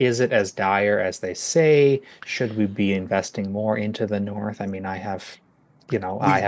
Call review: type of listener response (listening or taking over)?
listening